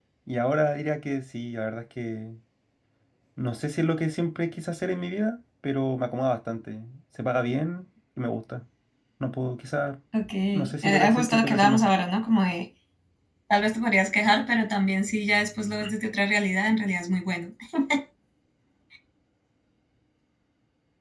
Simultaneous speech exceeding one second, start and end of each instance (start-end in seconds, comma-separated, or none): 10.5-11.9